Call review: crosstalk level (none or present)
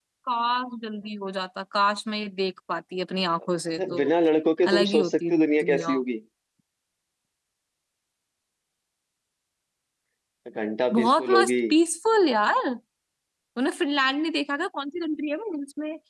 present